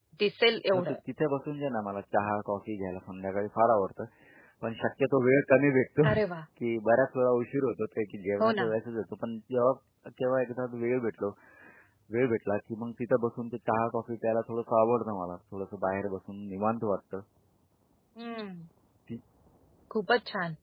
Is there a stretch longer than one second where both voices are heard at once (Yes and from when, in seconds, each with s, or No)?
No